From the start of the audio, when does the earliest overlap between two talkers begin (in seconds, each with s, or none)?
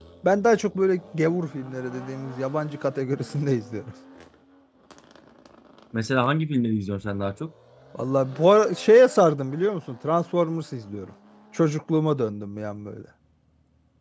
none